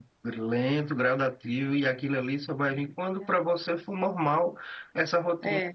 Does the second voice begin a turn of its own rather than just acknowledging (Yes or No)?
No